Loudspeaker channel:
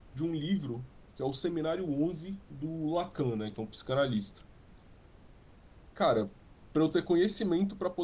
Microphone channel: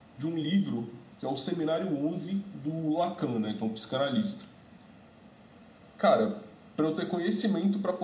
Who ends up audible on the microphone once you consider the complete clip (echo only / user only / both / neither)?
echo only